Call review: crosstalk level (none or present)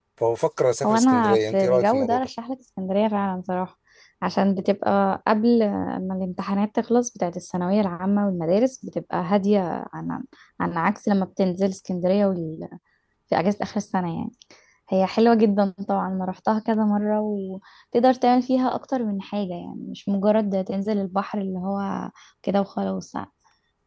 present